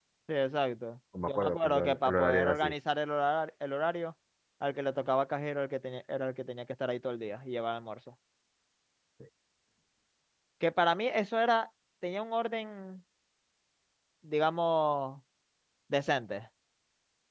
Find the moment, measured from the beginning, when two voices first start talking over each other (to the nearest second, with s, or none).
1 s